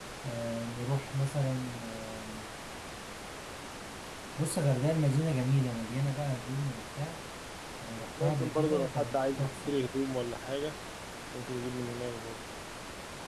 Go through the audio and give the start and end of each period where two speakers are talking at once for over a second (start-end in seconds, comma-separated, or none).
8.2-9.8